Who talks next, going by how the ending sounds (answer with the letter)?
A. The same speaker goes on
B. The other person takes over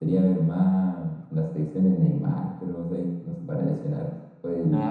A